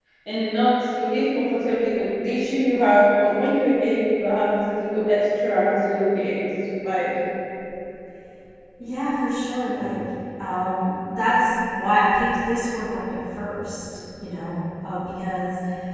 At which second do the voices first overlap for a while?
none

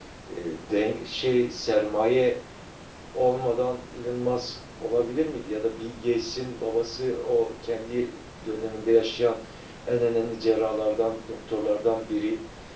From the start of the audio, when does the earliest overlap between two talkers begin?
none

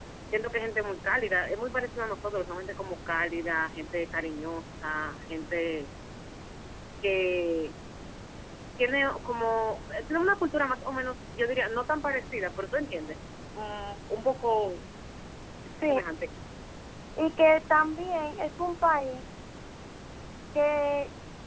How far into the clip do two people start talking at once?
none

